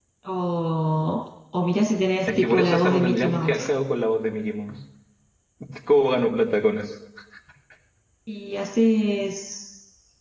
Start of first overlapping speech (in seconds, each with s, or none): 2.3 s